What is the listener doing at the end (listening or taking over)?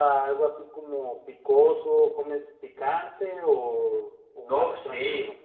taking over